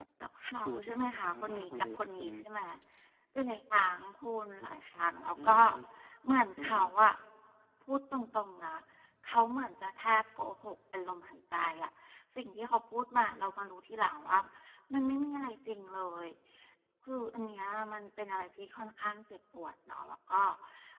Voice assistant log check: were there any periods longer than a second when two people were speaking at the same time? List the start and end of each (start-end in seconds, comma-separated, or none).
0.6-2.3